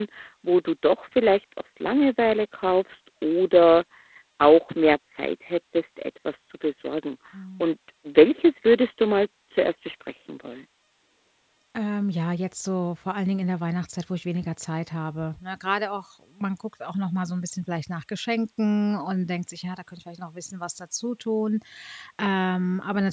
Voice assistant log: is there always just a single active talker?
Yes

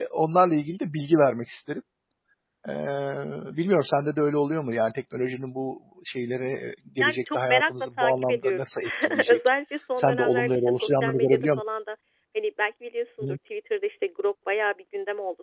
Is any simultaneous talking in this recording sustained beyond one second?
Yes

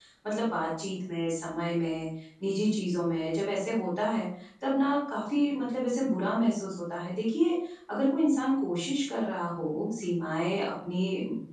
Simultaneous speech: No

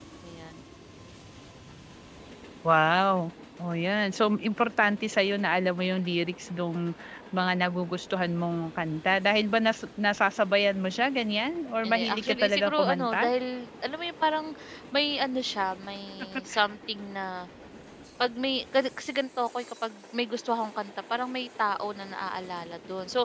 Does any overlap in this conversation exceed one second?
Yes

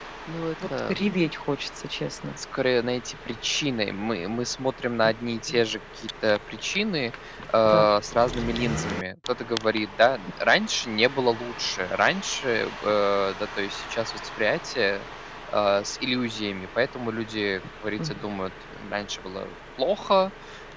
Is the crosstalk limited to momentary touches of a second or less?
Yes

